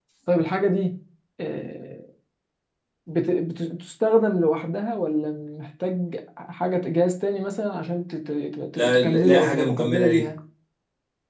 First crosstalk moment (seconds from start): 9 s

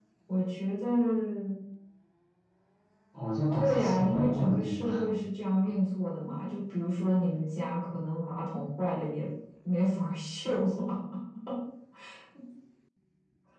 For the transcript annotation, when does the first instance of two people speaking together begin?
4 s

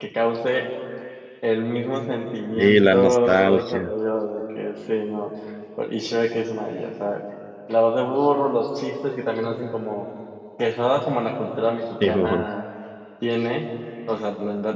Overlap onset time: 3 s

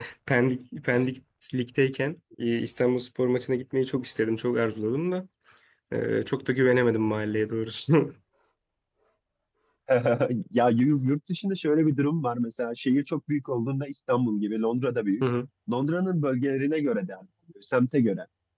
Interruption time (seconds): none

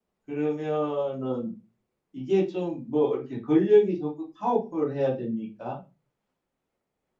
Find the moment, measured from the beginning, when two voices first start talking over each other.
none

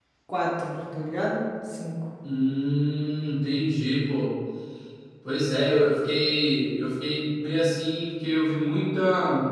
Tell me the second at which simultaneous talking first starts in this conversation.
none

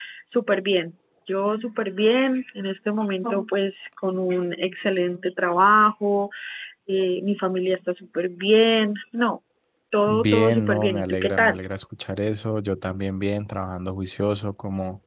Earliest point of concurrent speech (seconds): 10 s

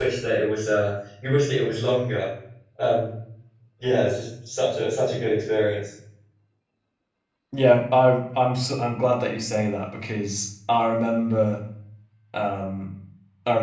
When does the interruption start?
none

